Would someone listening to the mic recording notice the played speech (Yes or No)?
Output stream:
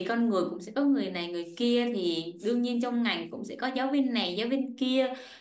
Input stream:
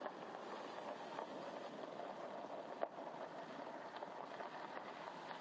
No